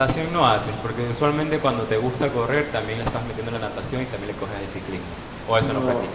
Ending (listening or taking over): taking over